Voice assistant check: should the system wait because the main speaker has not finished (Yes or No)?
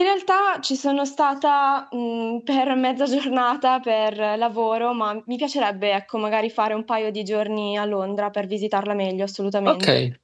No